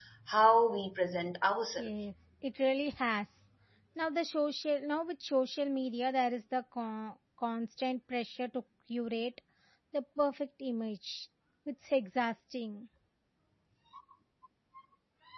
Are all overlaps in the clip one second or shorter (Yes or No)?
Yes